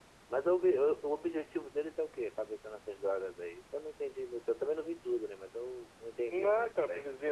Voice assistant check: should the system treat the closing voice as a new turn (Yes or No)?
Yes